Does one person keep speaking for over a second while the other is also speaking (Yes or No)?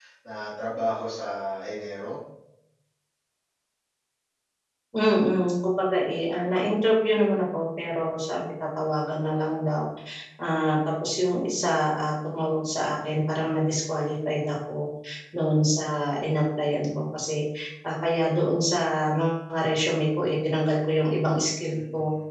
No